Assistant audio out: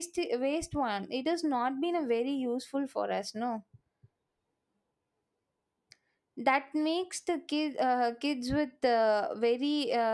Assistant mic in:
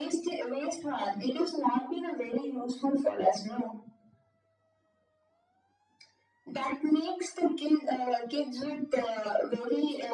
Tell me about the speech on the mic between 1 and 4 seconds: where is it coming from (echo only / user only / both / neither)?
echo only